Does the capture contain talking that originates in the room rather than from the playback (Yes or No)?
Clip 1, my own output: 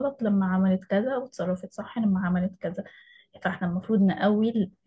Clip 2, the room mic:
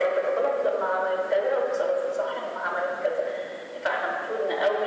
No